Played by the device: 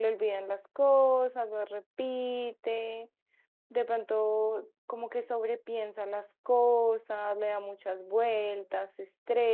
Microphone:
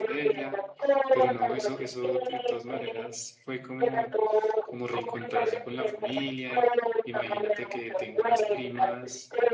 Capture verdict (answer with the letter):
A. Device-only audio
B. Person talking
B